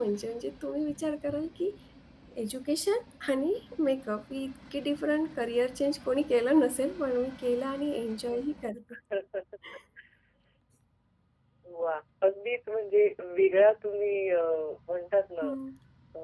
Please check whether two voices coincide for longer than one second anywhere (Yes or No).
No